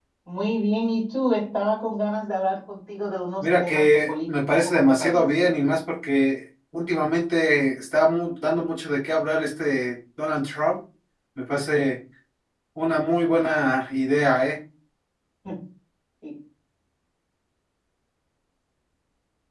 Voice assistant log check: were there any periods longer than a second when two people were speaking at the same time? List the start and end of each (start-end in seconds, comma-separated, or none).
3.4-5.5